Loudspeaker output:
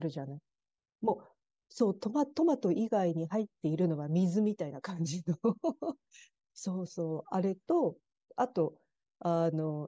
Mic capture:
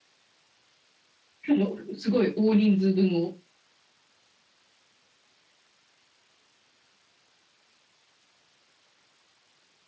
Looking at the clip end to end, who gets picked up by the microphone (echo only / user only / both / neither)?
user only